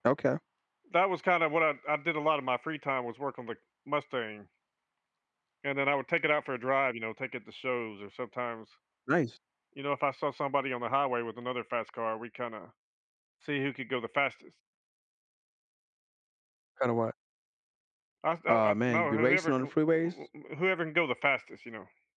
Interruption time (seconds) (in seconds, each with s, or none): 18.5 s